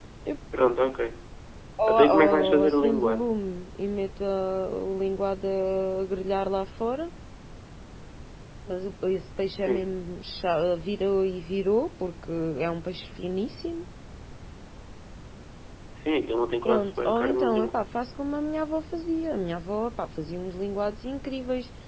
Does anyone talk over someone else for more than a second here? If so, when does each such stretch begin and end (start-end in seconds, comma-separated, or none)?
1.9-3.3, 16.6-17.9